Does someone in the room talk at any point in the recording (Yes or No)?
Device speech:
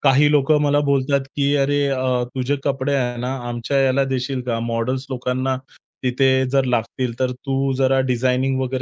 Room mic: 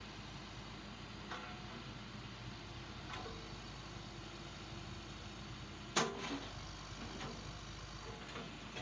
No